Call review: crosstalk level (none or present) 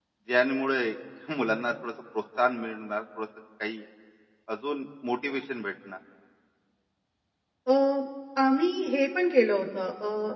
none